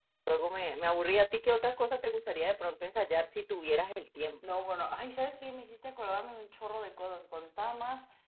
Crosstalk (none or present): none